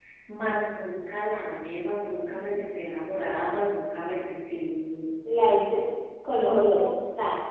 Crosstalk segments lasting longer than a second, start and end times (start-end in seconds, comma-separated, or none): none